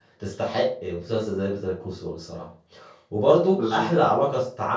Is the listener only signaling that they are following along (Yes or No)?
Yes